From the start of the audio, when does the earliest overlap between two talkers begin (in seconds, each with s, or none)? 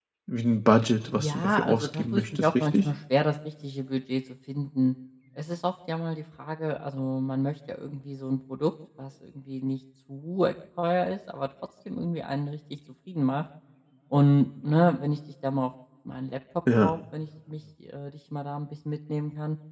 1.2 s